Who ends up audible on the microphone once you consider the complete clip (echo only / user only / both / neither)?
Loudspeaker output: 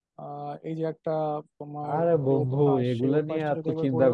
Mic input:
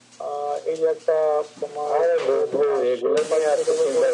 echo only